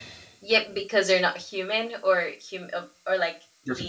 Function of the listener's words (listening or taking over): taking over